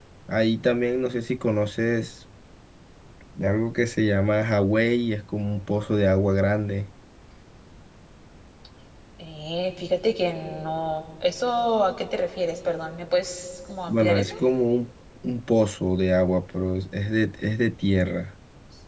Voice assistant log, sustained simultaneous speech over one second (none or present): none